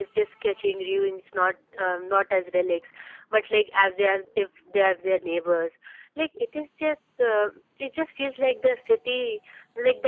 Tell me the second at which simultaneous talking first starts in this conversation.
none

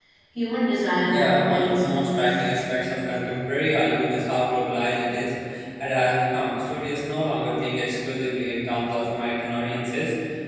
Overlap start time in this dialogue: 1.1 s

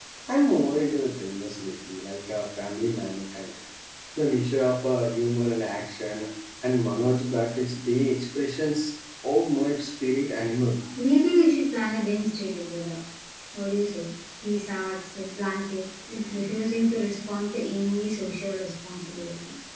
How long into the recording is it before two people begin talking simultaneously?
none

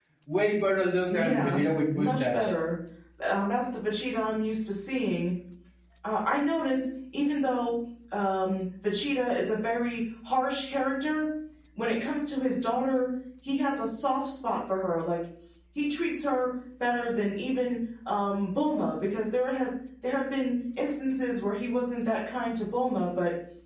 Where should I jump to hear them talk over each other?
1.1 s

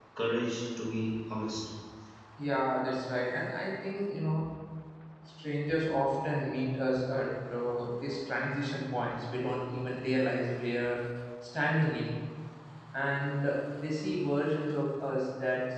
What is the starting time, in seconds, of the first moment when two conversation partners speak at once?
none

